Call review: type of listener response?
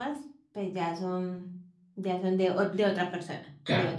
taking over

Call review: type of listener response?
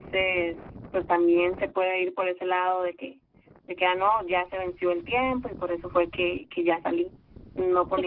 taking over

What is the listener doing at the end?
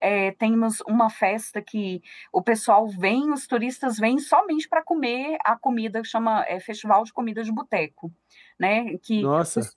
listening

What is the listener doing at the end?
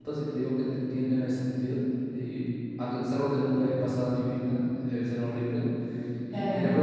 listening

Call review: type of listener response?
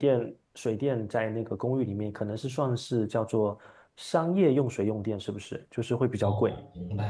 taking over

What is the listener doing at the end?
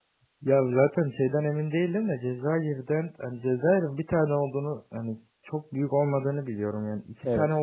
listening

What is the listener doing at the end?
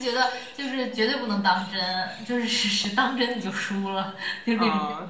taking over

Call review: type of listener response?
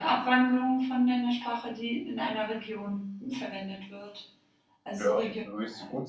taking over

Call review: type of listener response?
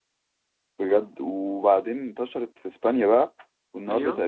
listening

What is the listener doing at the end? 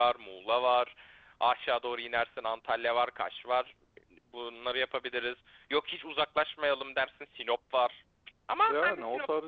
taking over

